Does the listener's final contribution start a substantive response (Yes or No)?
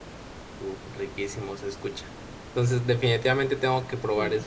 No